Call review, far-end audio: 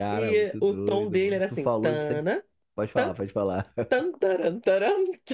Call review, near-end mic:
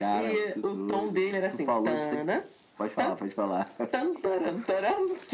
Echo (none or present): present